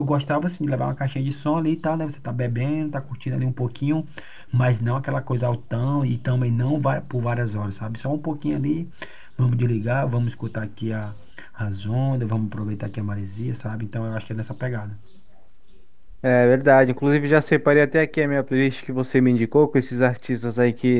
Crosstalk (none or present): none